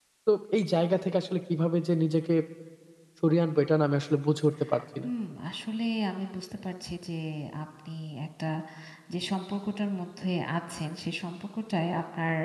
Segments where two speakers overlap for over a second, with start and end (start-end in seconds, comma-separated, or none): none